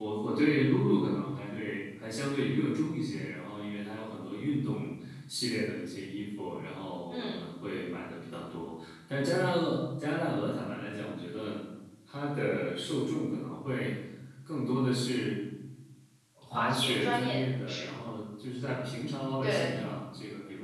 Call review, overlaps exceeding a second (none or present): present